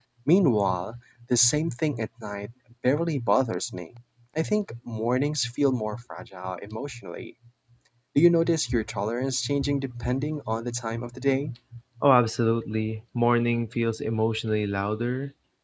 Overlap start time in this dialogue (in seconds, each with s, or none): none